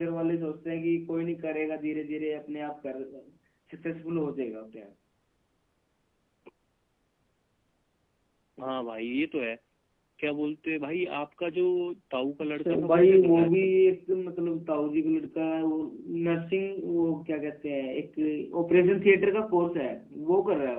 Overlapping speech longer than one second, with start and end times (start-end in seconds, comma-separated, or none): 12.4-13.7